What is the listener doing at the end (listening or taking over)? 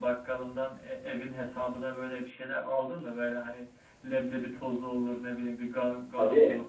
taking over